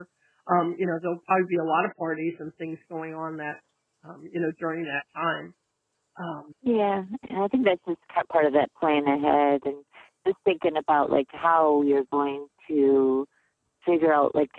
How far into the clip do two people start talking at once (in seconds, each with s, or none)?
none